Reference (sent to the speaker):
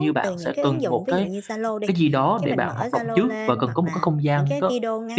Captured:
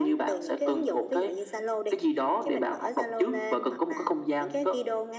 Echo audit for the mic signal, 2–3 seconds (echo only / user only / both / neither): echo only